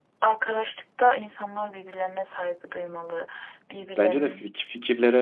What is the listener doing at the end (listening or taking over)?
taking over